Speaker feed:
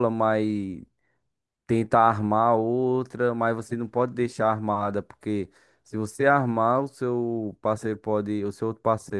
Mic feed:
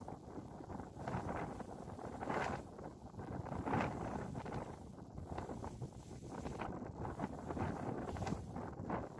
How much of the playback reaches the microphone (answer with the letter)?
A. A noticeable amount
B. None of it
B